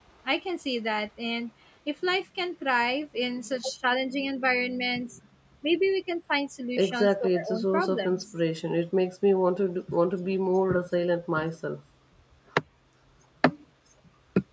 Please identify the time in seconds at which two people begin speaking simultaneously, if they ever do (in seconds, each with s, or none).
6.8 s